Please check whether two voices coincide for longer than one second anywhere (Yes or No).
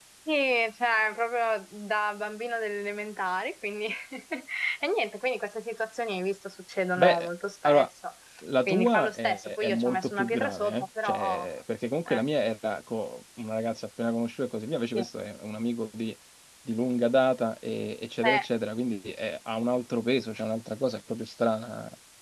Yes